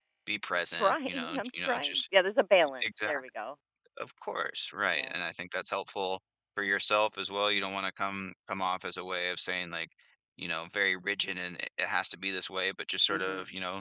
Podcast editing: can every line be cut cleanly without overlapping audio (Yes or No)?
No